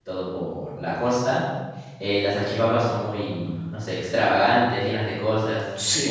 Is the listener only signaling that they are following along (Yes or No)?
No